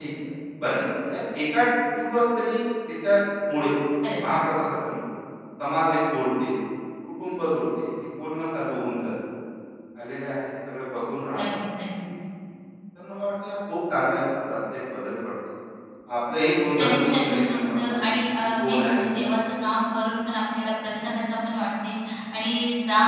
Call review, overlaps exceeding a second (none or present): present